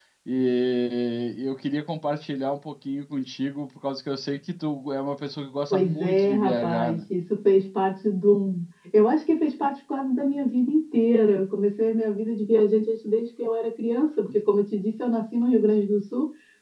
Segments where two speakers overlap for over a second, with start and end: 5.7-7.0

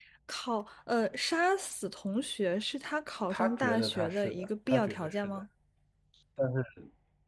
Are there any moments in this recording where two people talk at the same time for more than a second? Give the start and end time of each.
3.3-5.4

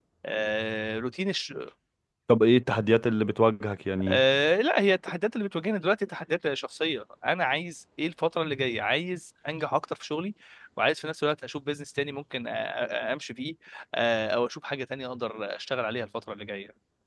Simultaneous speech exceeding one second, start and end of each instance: none

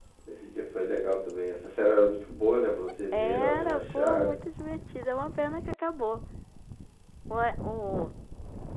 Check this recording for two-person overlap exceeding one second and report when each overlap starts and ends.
3.1-4.3

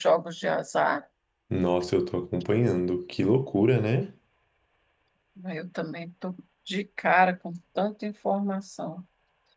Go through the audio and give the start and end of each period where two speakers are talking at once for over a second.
none

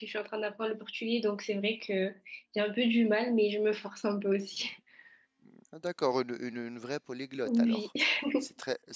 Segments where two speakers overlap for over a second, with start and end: none

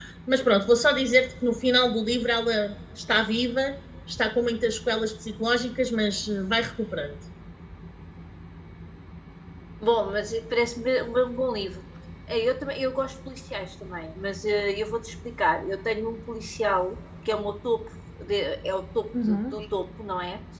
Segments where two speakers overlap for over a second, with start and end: none

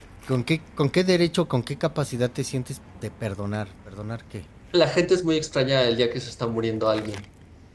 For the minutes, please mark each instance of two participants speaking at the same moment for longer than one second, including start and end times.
none

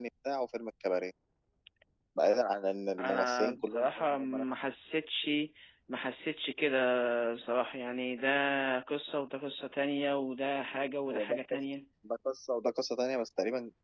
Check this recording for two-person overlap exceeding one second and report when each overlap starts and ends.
3.0-4.4

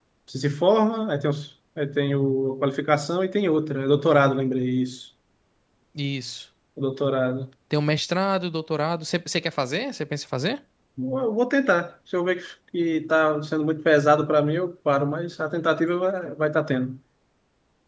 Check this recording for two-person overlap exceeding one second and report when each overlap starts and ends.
none

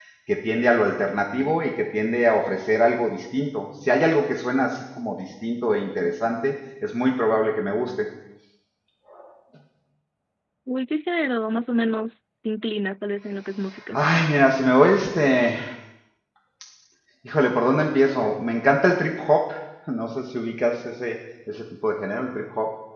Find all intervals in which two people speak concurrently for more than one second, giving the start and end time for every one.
none

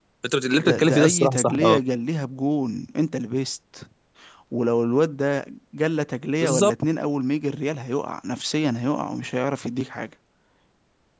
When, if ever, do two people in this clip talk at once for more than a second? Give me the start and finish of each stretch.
0.6-1.8

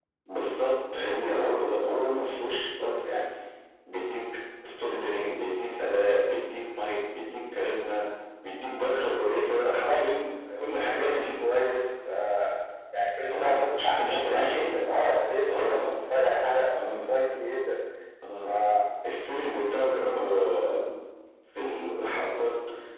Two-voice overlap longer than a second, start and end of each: 13.3-14.8

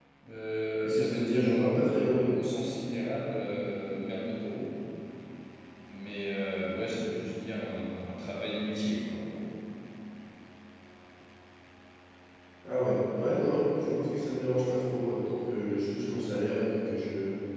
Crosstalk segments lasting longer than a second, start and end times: 0.8-2.3

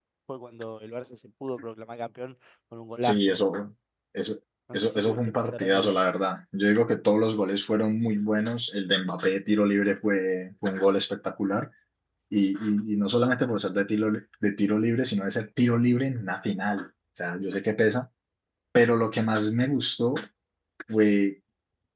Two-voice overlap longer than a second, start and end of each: 4.7-6.0

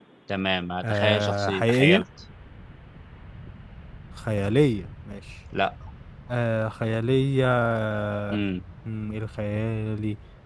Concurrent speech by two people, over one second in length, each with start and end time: 0.8-2.0

